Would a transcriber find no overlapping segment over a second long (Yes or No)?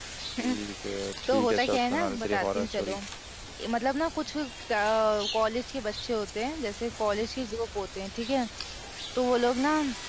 No